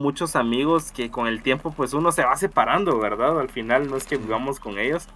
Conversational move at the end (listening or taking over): listening